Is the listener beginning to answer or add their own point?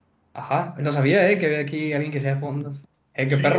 Yes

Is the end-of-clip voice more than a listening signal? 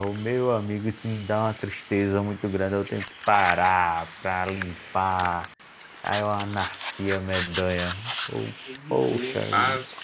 Yes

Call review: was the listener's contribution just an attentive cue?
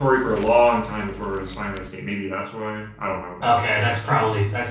No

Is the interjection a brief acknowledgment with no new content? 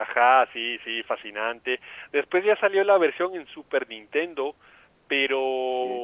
Yes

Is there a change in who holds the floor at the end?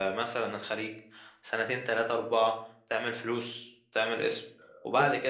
No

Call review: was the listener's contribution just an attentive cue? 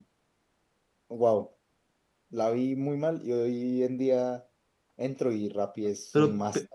Yes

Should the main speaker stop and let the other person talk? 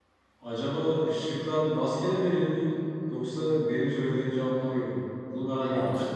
Yes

